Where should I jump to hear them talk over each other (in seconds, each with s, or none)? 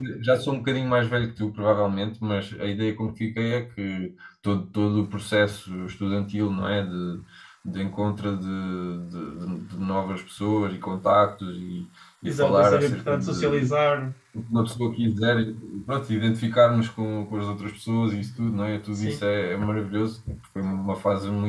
12.2 s